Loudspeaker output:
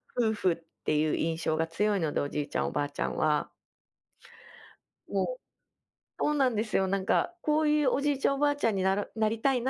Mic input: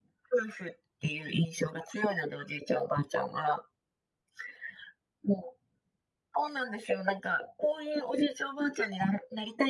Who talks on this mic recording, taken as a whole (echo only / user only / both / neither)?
echo only